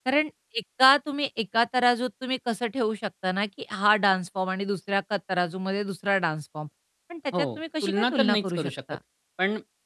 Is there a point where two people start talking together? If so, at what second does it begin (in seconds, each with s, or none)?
7.4 s